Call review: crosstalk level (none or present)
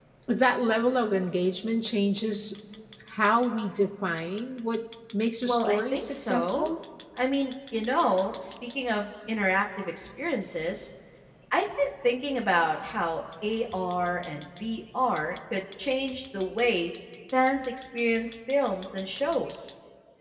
present